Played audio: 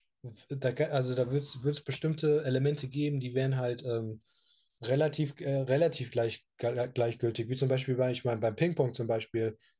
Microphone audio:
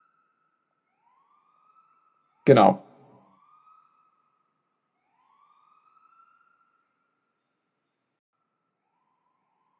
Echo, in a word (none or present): none